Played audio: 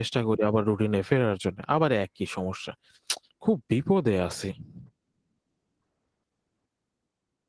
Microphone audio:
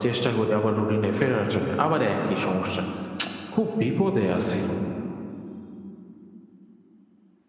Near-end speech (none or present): none